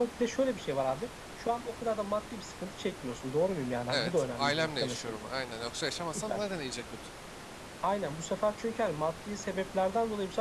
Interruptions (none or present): present